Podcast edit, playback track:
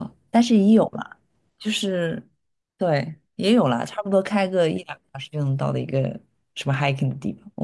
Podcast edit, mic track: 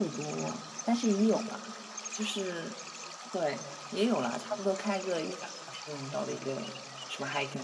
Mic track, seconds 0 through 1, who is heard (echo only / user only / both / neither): echo only